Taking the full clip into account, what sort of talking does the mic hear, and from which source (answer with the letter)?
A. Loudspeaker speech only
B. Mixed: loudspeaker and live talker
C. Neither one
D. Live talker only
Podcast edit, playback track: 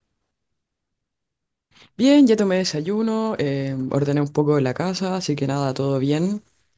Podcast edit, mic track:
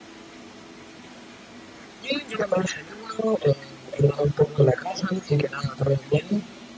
A